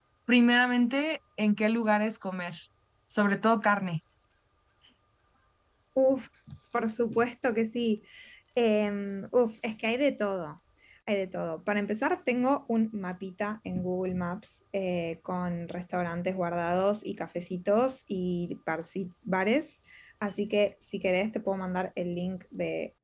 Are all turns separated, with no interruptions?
Yes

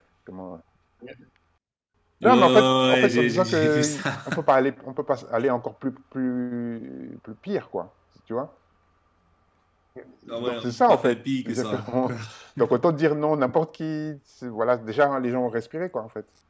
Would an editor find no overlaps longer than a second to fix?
No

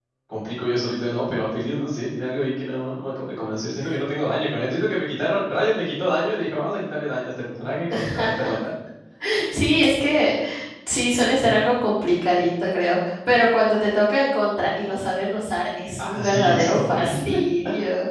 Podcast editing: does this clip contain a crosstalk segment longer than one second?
Yes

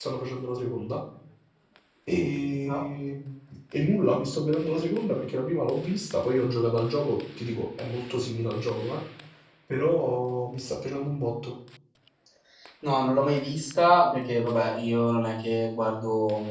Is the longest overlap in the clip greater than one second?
No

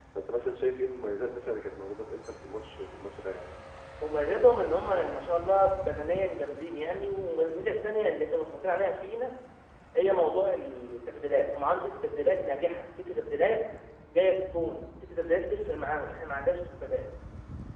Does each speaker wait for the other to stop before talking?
Yes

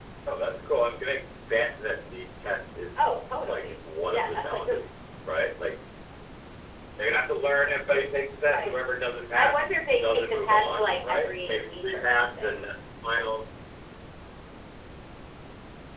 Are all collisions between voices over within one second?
No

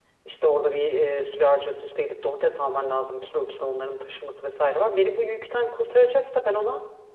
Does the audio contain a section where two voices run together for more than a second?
No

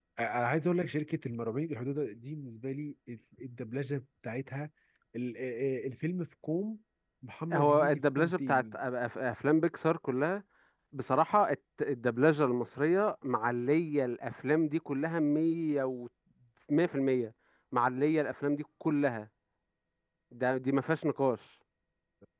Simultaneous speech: Yes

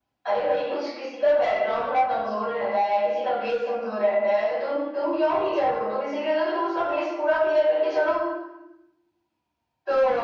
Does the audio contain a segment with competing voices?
No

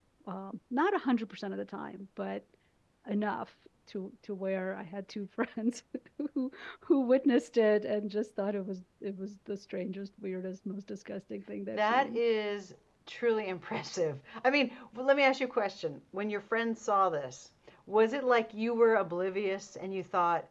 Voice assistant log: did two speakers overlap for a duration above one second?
No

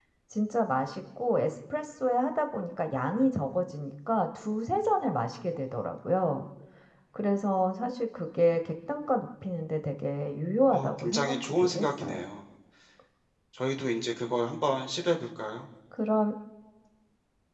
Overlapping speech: Yes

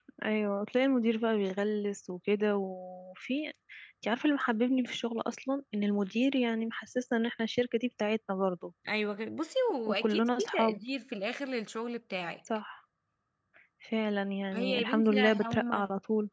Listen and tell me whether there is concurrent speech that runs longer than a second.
Yes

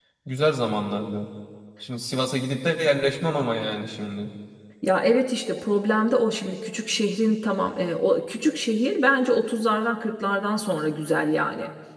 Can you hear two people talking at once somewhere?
No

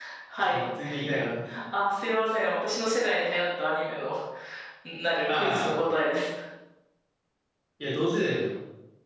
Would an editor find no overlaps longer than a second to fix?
Yes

